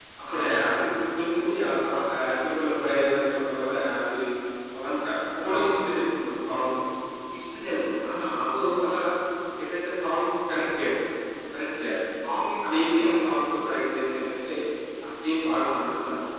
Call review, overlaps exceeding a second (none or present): none